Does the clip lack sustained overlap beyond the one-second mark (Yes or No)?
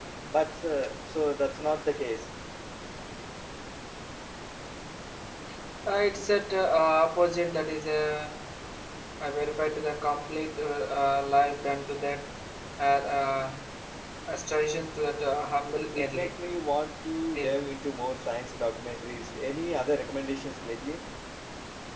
Yes